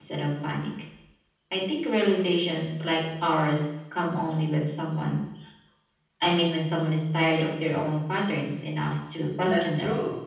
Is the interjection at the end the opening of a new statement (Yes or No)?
Yes